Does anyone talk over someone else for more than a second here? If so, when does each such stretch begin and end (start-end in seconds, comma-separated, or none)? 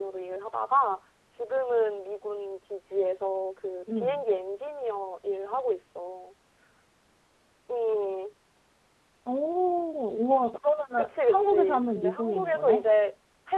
11.0-12.8